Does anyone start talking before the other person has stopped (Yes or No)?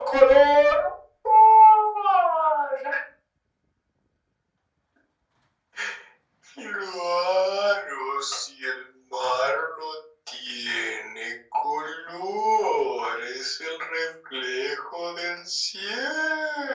No